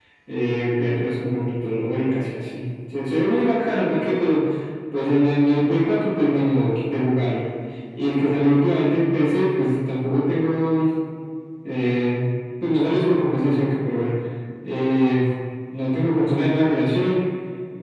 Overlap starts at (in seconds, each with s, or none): none